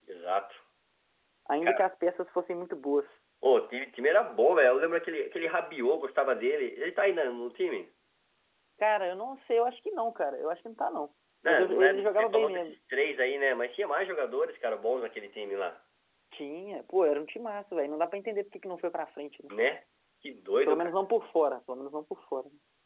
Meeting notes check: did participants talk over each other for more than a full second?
Yes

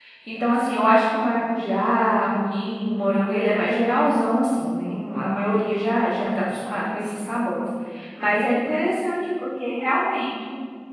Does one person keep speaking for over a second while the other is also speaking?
No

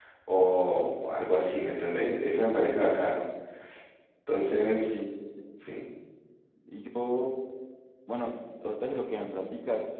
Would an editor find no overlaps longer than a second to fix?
Yes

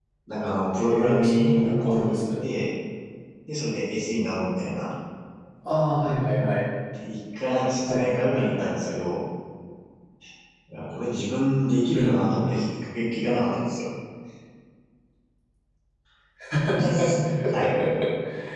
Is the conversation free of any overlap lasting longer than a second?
No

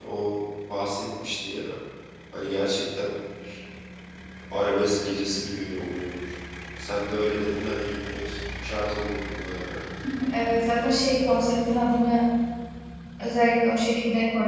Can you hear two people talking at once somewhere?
No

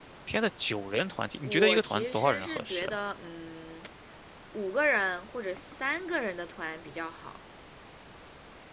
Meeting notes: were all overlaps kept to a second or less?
No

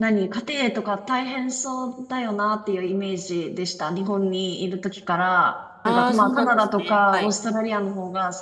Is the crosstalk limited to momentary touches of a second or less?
No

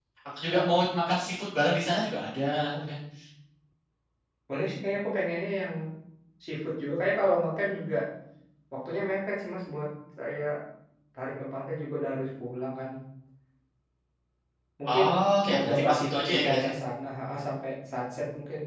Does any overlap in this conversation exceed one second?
Yes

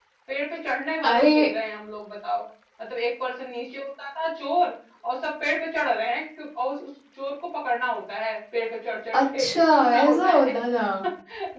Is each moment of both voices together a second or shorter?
No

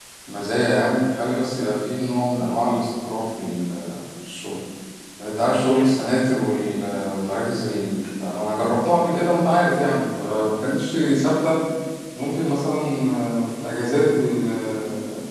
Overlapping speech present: No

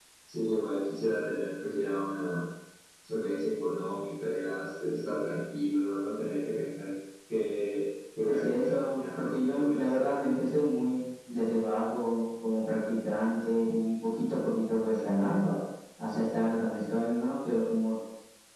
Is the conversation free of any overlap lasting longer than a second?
No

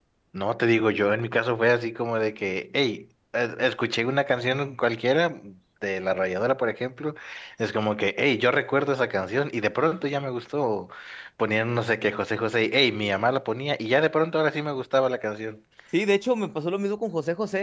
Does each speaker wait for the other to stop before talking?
Yes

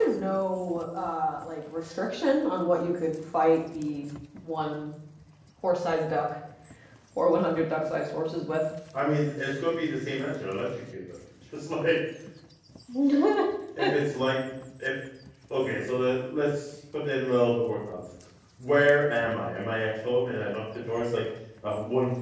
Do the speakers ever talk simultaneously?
No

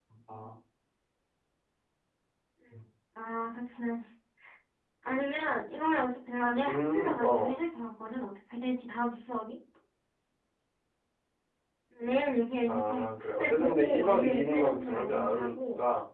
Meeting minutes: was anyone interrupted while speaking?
Yes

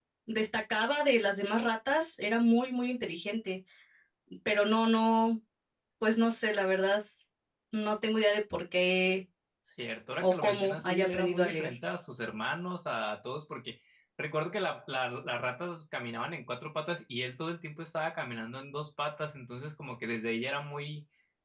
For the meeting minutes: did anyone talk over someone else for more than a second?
Yes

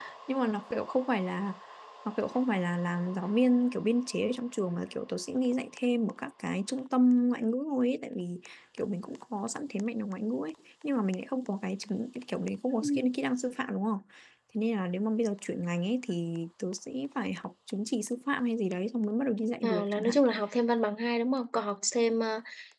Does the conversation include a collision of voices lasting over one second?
No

